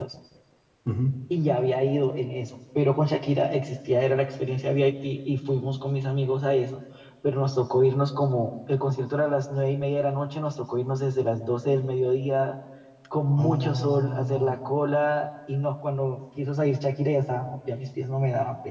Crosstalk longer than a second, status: present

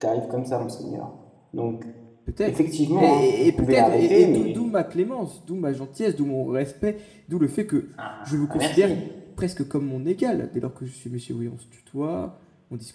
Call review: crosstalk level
present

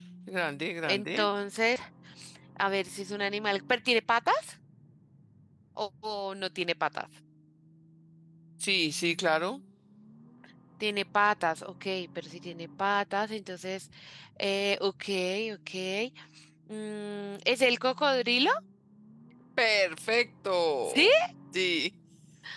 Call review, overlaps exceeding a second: none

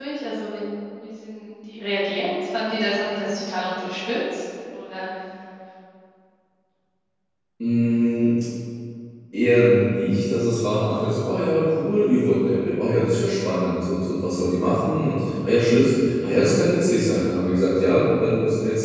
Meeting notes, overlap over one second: none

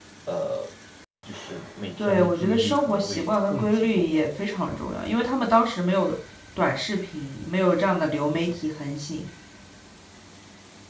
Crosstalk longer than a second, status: present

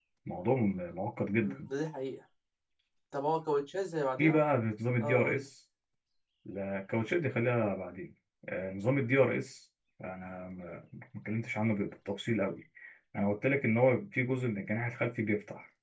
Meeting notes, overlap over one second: none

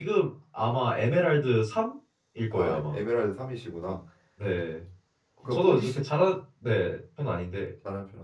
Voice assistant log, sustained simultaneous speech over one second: none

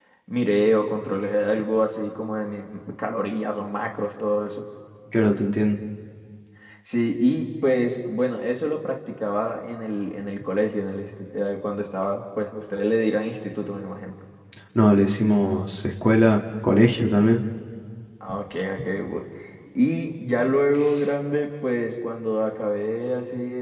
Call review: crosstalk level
none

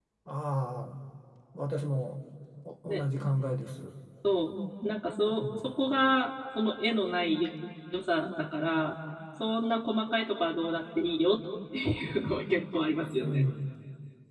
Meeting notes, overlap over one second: none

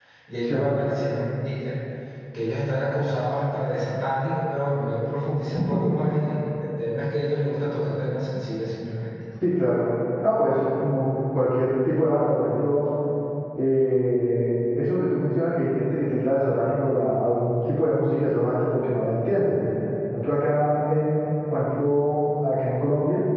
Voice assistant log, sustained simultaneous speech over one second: none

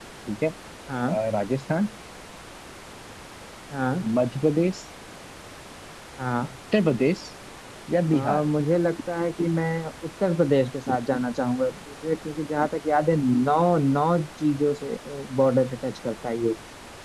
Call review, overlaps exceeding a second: none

